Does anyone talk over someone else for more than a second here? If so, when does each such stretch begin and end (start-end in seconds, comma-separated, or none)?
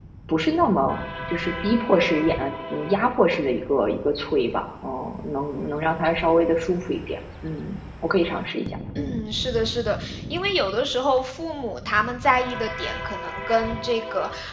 none